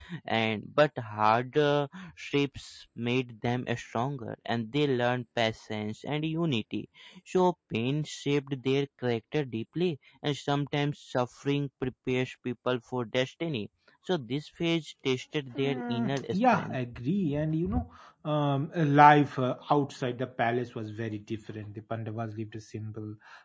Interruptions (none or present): present